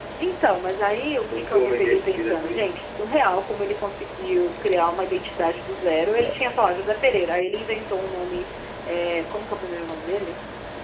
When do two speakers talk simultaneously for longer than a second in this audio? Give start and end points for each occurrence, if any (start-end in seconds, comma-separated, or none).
1.3-2.8